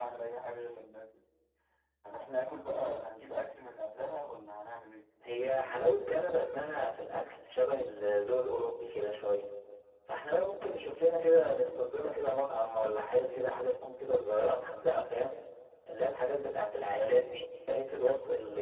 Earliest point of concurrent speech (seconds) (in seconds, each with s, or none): none